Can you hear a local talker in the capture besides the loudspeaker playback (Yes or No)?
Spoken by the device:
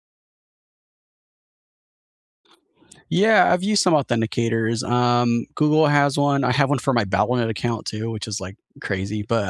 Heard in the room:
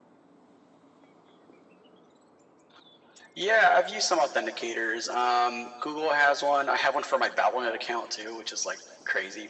No